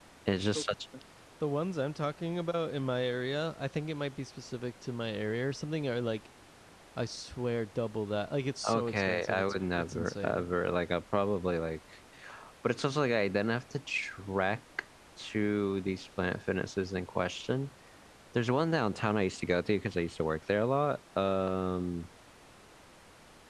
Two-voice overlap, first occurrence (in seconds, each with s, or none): 8.6 s